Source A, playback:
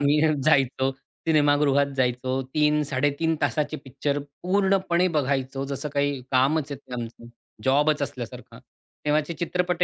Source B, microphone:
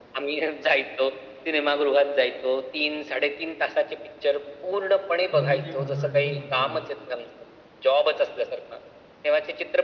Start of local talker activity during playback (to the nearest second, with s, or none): 5 s